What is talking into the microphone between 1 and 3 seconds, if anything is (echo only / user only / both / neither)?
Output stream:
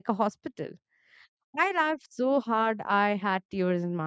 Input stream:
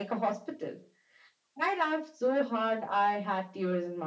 echo only